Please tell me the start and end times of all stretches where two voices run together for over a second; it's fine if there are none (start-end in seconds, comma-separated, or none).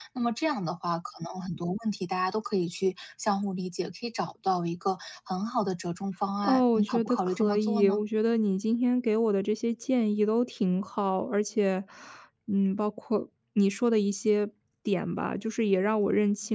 6.4-8.0